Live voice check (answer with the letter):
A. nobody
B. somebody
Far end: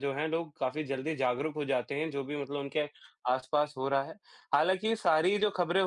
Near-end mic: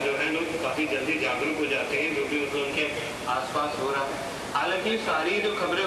A